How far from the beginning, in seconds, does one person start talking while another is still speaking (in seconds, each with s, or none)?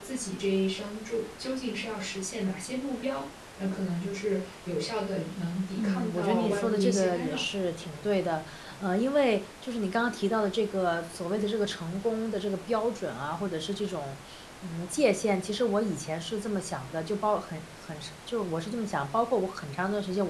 5.8 s